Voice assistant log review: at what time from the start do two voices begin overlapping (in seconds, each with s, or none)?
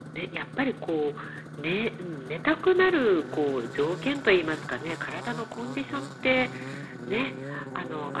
none